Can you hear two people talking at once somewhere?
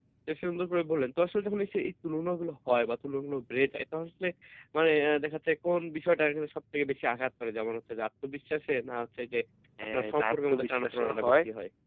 Yes, from 9.9 s

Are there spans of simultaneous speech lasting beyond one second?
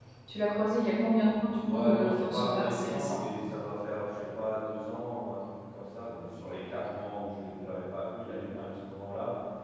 Yes, from 1.6 s

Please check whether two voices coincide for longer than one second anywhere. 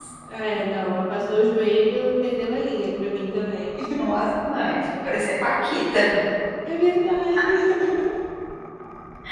No

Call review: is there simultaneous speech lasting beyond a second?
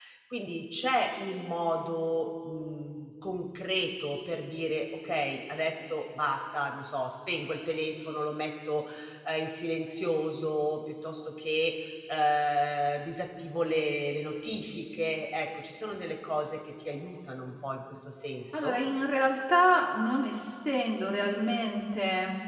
No

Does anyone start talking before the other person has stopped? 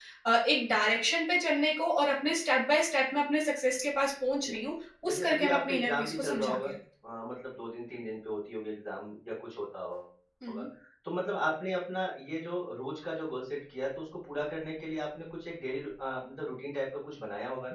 Yes, from 5.0 s

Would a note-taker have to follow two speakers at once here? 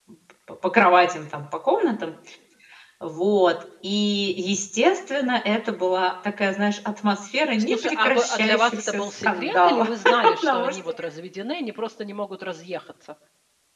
Yes, from 7.6 s

